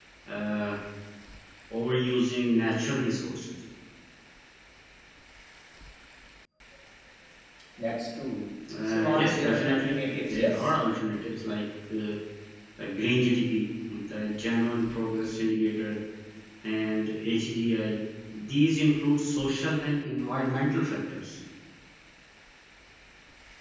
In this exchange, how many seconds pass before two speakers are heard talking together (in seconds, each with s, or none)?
8.7 s